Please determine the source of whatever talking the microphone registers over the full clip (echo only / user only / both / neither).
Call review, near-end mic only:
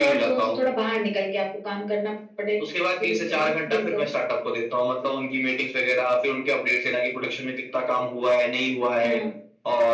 echo only